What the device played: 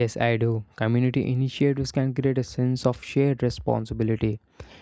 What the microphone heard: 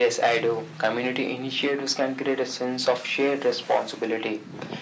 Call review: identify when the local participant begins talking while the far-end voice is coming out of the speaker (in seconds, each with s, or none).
none